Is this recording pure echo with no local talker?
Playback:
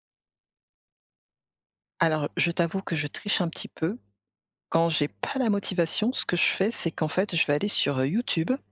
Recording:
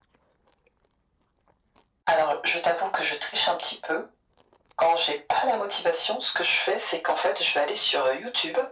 Yes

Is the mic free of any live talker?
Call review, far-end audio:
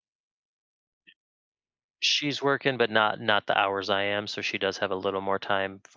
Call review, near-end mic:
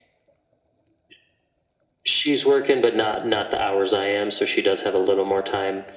Yes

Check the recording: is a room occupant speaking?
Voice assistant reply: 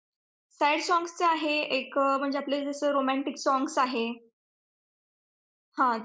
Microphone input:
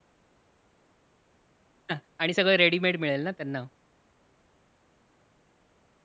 Yes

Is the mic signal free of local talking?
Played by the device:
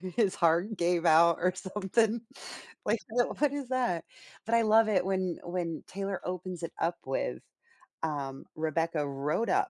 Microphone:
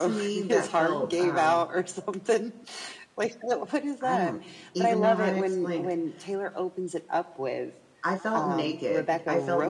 No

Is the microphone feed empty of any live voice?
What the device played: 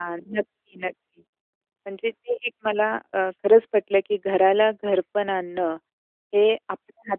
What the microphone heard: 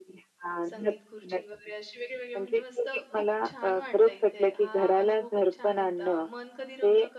No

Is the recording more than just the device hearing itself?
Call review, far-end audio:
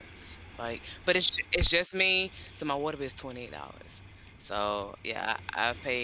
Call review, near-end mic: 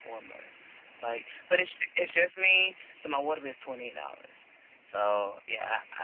No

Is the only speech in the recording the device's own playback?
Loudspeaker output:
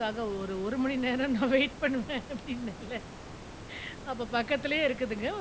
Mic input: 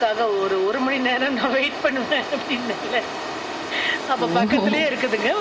No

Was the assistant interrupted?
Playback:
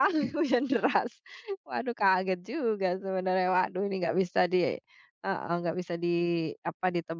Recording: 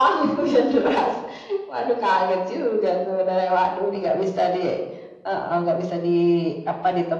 No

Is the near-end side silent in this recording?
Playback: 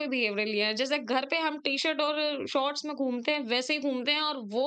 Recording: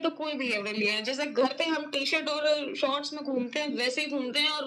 Yes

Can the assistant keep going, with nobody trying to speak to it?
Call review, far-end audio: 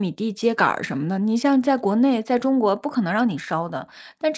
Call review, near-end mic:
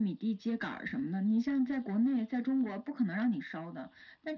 Yes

